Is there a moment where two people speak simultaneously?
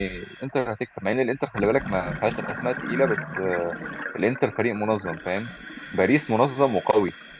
No

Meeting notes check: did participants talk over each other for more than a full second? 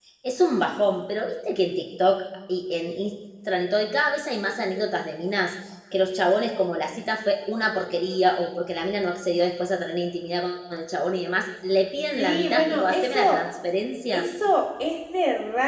Yes, from 12.2 s

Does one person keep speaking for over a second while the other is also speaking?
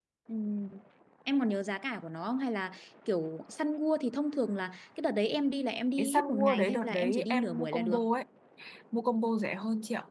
Yes, from 6.0 s

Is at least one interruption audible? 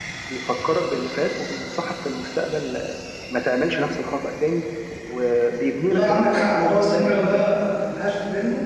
Yes, from 5.9 s

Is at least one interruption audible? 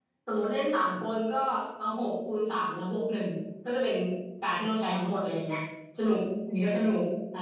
No

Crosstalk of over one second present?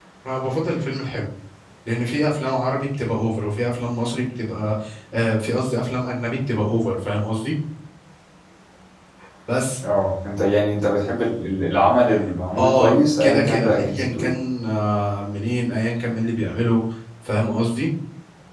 Yes, from 12.6 s

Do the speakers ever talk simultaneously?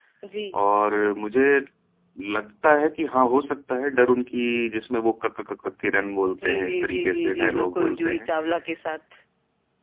Yes, from 6.2 s

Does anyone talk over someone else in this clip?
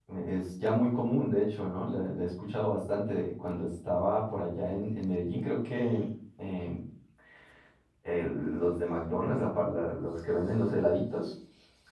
No

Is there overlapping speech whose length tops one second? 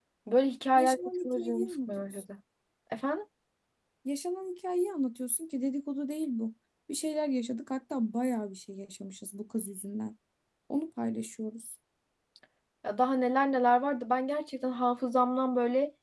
Yes, from 0.8 s

